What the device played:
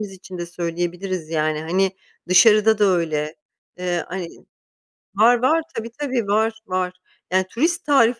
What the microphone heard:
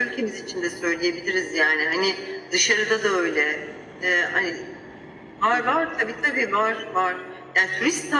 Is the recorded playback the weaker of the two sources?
No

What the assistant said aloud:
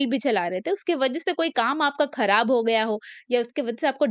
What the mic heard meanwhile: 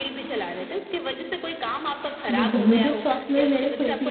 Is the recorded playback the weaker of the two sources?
Yes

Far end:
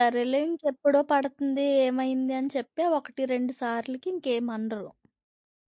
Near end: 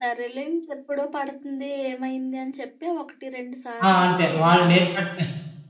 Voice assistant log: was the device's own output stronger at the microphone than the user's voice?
No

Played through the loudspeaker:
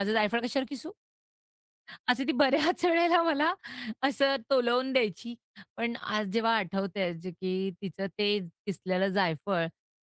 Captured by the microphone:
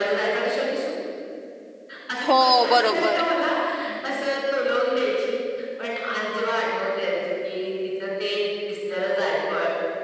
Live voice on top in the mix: Yes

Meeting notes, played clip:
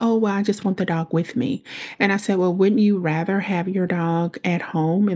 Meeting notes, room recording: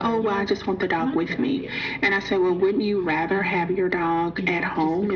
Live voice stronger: No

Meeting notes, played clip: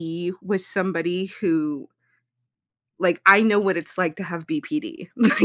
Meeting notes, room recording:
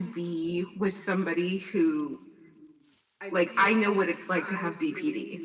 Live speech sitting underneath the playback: Yes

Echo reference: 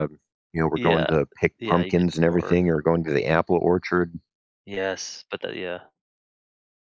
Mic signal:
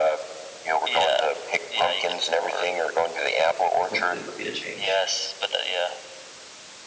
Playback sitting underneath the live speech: No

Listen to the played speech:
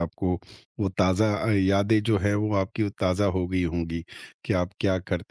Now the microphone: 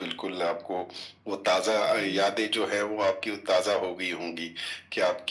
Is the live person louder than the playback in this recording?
No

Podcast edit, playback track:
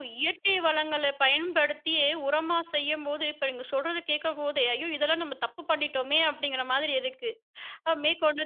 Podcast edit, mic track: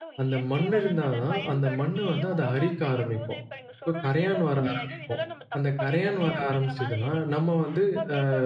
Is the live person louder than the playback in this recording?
Yes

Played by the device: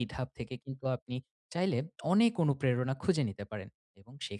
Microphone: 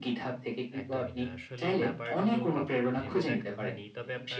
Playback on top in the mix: Yes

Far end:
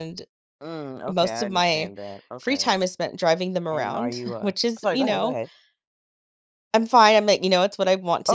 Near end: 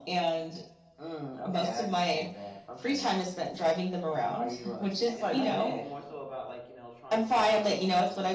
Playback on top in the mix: Yes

